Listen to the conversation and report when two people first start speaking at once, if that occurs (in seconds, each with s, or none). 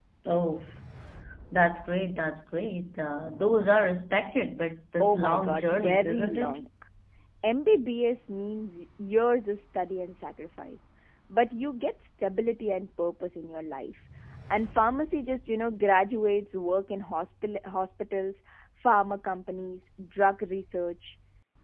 5.0 s